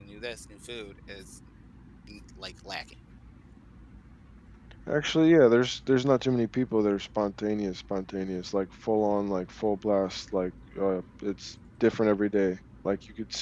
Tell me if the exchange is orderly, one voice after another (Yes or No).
Yes